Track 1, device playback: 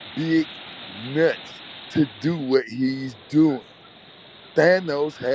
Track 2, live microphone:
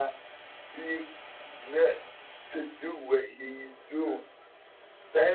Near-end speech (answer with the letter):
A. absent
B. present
A